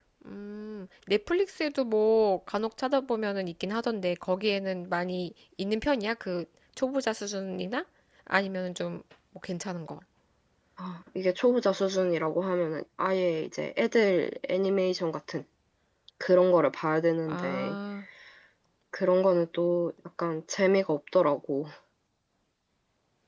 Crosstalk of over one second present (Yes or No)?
No